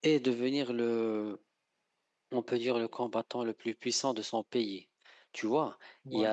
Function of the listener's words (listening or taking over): listening